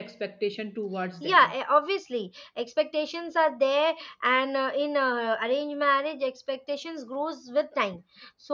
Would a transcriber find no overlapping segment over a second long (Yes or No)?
Yes